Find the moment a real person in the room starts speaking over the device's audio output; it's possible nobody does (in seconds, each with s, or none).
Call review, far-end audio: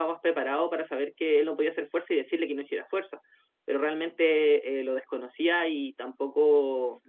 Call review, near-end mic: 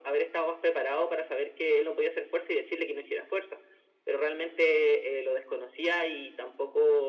none